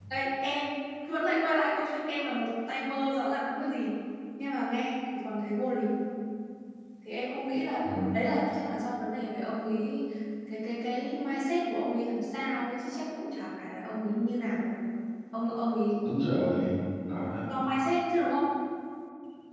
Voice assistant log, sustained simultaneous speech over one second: none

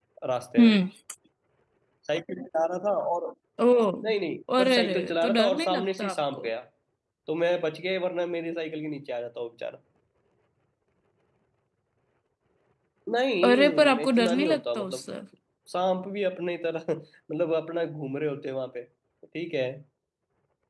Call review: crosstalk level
present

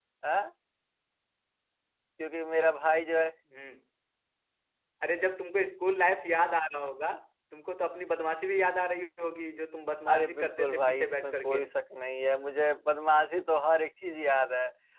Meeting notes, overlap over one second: present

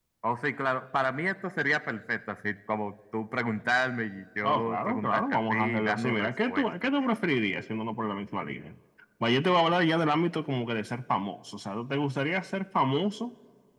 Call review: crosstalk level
present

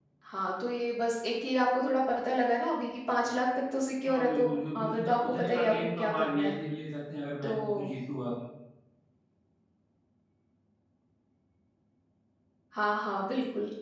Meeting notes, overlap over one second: present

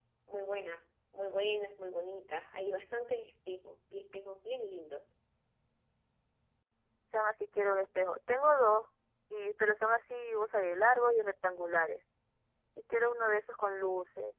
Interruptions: none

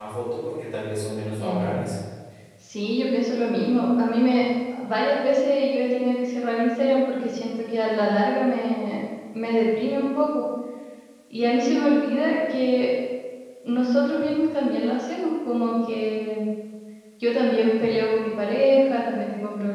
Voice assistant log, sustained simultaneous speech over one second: none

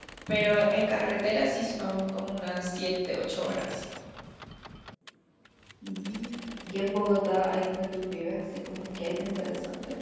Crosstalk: none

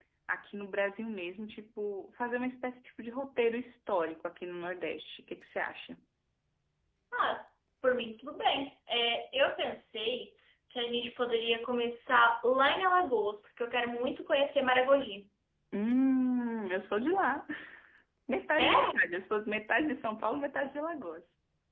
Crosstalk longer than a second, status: none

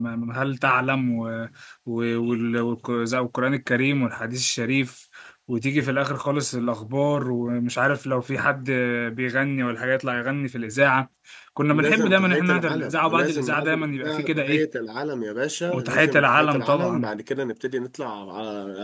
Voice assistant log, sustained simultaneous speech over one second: present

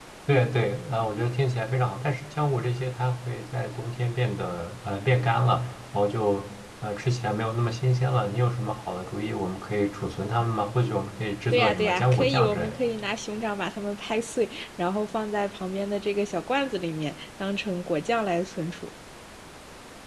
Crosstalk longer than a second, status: present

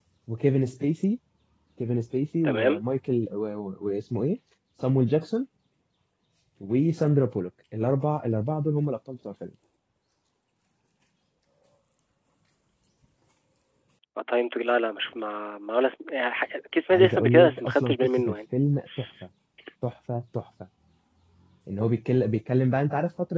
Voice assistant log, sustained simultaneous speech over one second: present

